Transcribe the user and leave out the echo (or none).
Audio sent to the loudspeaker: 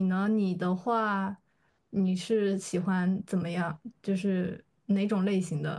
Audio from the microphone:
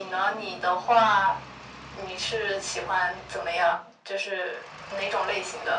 none